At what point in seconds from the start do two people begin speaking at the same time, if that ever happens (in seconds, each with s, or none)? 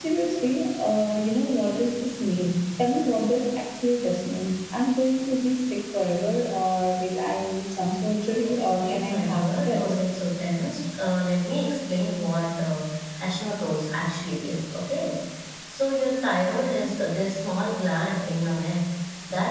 8.4 s